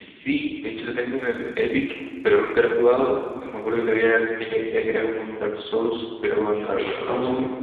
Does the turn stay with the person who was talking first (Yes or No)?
No